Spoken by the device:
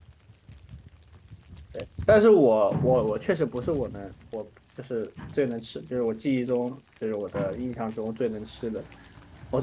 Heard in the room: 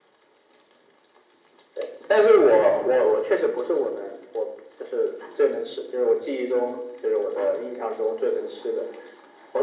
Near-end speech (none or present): none